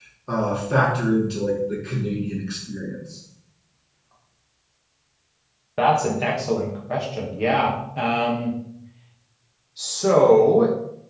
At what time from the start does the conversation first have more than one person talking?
none

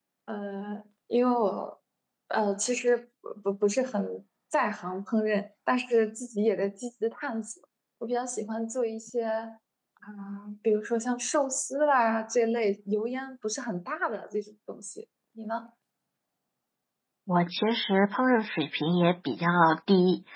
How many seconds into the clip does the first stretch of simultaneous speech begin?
none

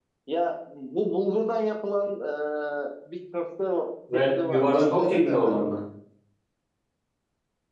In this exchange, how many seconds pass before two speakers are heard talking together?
4 s

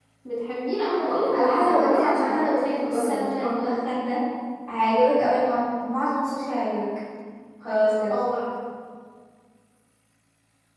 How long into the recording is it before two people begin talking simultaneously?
1 s

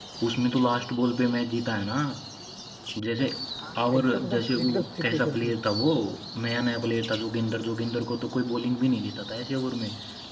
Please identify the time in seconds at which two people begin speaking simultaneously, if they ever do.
4 s

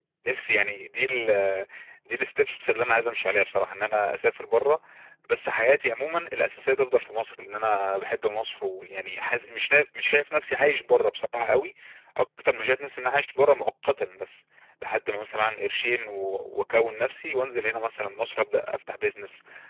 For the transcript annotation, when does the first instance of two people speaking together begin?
none

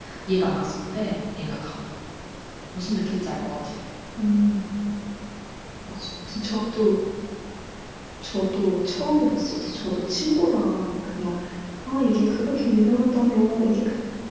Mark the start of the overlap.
none

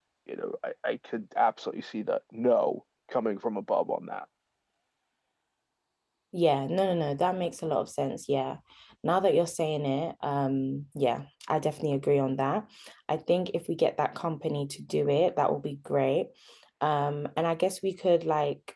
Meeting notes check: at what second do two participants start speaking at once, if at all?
none

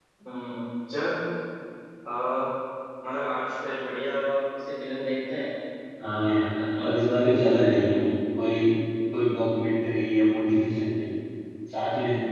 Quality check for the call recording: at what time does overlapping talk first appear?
7 s

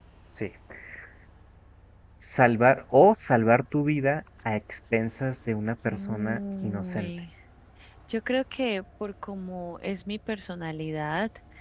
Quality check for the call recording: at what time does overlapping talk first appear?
6 s

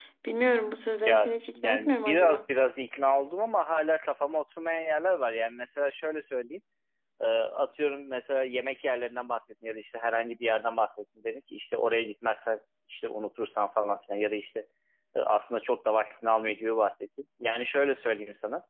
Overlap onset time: 1 s

